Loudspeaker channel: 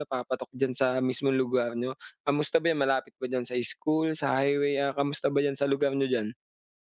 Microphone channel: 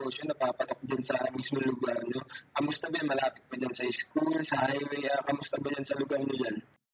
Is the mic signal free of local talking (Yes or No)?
Yes